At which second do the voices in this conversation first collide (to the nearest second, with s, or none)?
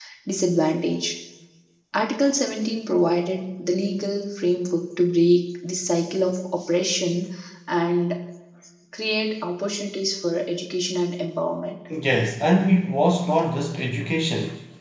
none